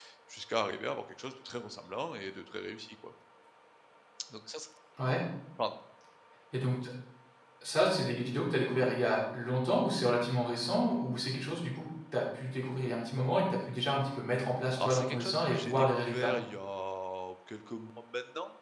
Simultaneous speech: Yes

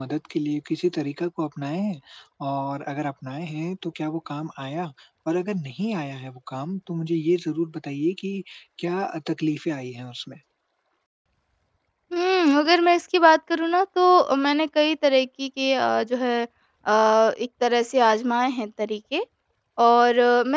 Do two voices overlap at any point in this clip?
No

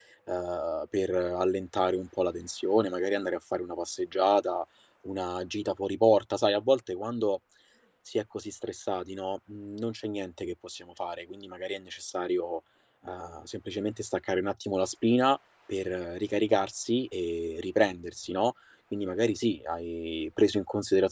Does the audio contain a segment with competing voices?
No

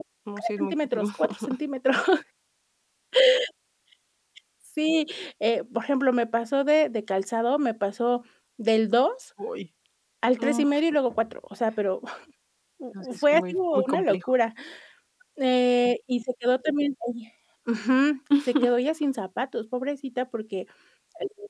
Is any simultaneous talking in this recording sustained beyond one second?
Yes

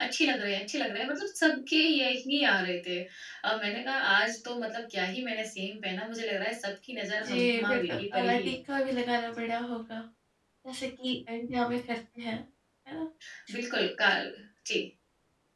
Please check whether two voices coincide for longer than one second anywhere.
Yes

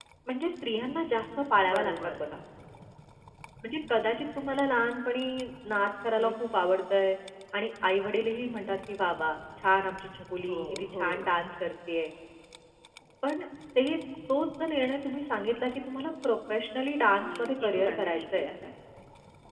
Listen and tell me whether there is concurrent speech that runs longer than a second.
Yes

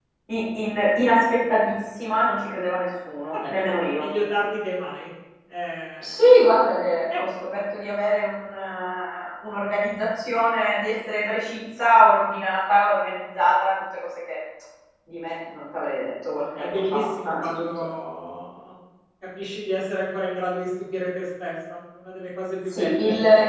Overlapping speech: Yes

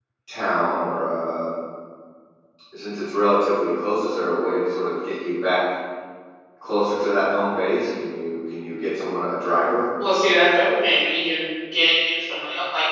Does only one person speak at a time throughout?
Yes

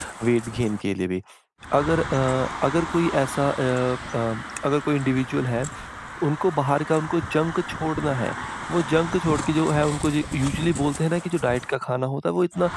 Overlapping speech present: No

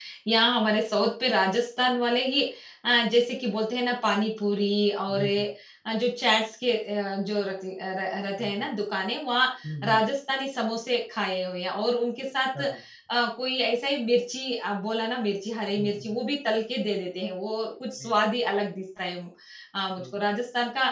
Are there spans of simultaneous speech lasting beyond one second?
No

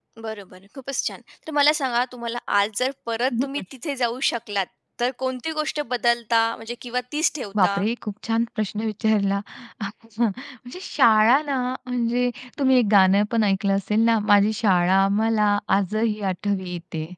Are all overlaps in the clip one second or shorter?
Yes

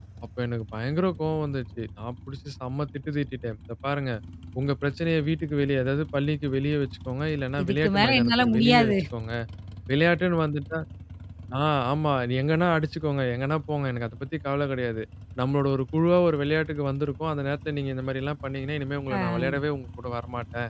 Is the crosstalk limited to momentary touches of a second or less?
No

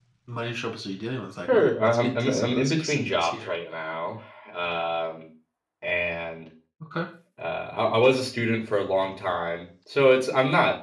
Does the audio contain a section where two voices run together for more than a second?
Yes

